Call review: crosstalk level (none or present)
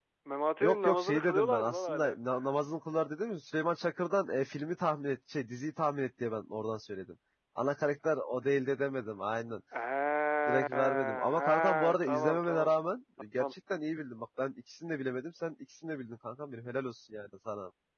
present